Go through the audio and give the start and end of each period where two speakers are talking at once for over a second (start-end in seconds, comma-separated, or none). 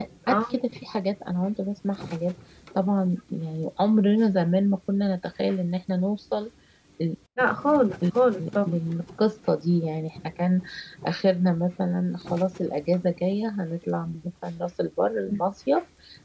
none